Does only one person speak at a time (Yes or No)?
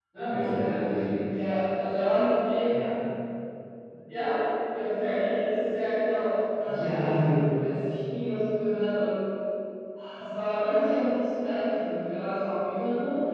No